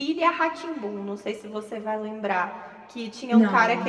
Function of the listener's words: listening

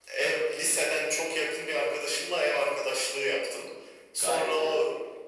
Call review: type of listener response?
listening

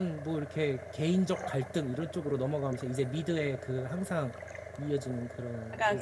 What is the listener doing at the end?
taking over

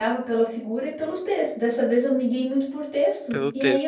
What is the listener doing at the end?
listening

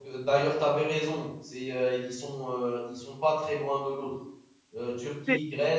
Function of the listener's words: listening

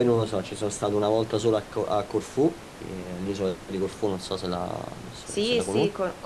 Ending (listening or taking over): taking over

